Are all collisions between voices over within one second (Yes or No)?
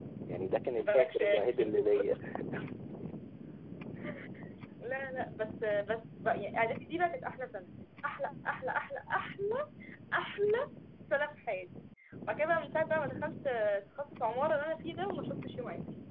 No